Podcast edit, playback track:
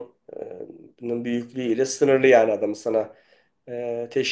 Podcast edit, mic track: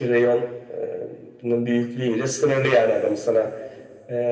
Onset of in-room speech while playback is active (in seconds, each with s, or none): none